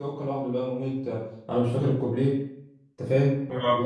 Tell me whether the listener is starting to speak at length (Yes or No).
Yes